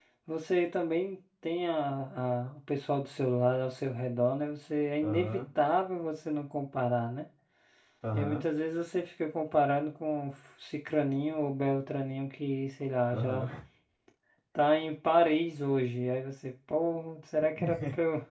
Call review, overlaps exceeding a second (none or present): none